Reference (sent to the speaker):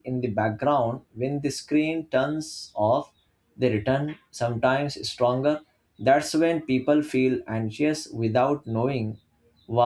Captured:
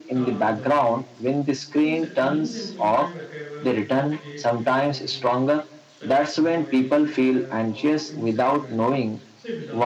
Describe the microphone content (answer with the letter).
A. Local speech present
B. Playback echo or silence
A